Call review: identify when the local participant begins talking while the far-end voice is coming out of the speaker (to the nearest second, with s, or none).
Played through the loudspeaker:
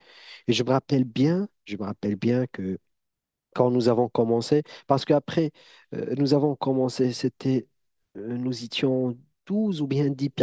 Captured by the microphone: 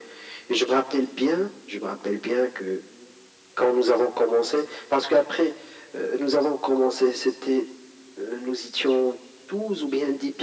none